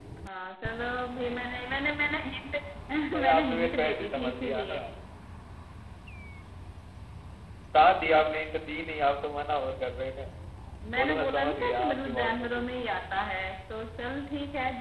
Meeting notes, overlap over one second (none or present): present